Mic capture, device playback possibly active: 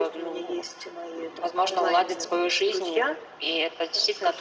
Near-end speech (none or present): none